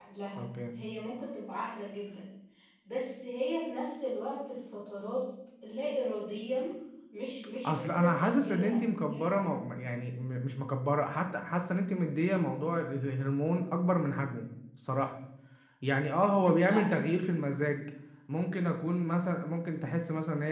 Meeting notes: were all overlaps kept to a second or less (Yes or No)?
No